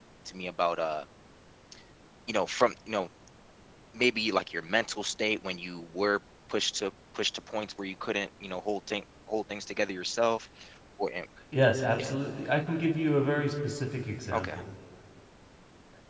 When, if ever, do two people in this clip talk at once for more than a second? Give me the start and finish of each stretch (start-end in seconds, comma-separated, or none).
none